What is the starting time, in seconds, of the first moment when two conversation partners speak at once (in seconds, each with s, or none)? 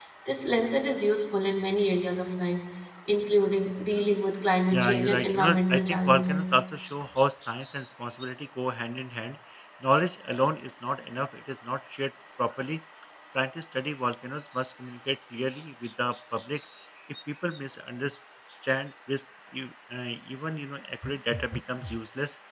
4.7 s